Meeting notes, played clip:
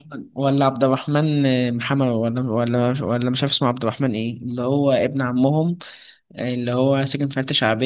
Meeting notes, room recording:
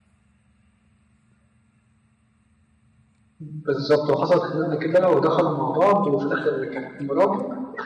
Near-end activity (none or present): present